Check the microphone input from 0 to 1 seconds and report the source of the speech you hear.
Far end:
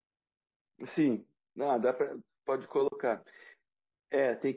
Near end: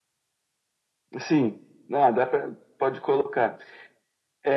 neither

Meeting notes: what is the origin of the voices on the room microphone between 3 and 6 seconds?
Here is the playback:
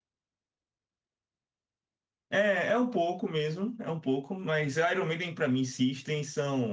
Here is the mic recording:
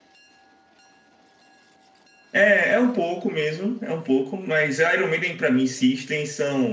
echo only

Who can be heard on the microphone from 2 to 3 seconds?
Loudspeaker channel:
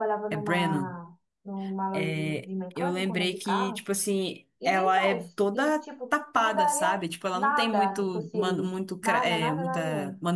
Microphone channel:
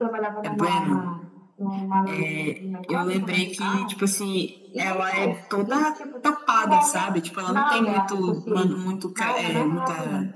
echo only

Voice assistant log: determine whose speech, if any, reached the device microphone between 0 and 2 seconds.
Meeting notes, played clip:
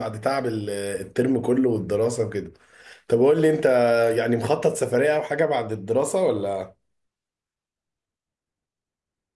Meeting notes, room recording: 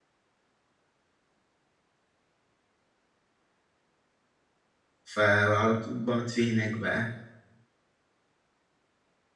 neither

